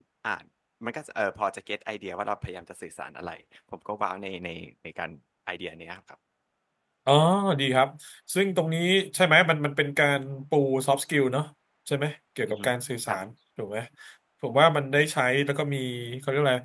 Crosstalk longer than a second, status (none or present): none